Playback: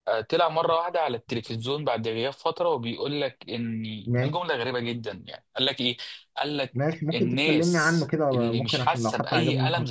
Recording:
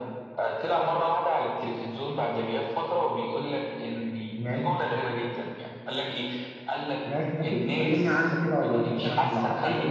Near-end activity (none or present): none